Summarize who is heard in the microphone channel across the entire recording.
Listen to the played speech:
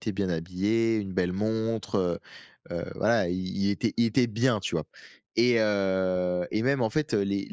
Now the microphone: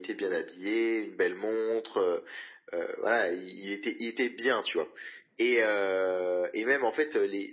echo only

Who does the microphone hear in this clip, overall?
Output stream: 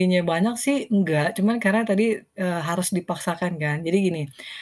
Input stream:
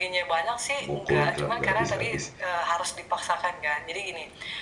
both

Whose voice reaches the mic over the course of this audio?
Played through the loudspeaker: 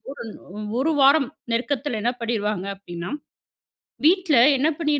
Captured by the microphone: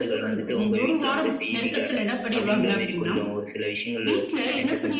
both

